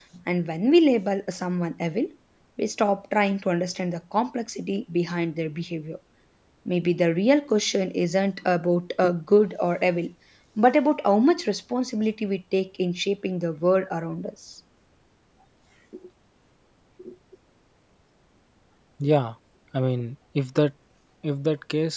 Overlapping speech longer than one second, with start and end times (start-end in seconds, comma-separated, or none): none